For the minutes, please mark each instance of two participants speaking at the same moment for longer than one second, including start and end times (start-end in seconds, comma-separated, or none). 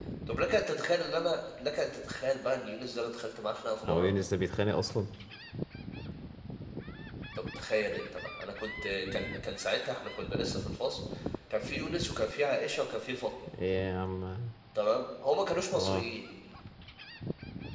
none